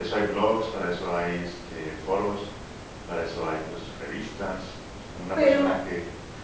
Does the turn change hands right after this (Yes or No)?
No